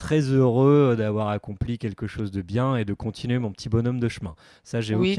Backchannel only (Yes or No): No